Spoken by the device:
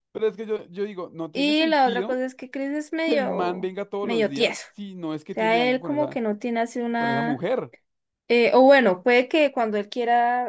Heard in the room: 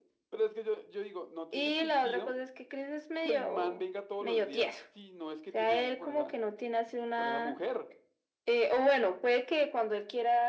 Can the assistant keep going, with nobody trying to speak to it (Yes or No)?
Yes